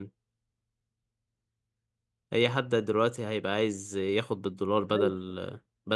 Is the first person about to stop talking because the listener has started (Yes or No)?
No